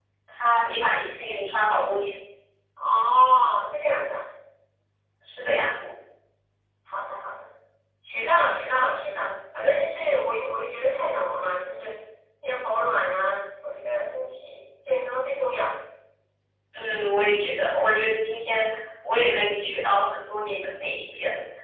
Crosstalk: none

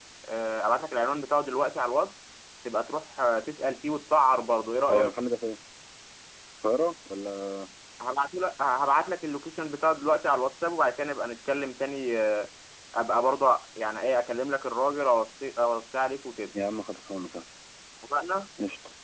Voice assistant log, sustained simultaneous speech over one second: none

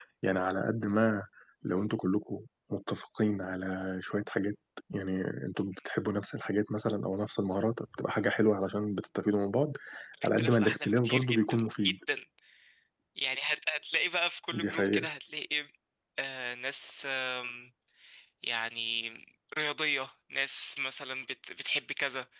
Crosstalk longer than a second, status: present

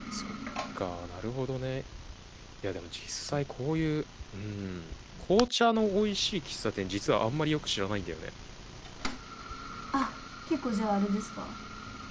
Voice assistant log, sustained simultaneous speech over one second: none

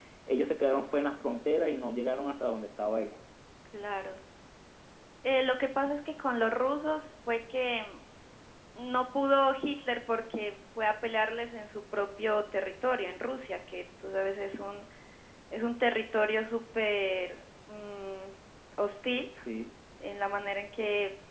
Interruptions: none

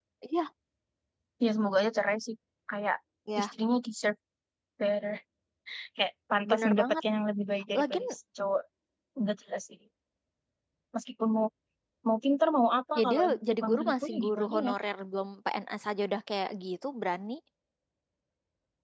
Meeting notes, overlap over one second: present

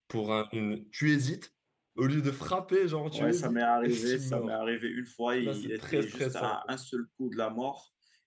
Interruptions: present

